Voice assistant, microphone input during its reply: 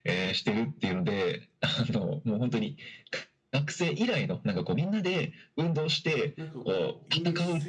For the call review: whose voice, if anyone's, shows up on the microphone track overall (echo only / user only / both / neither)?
both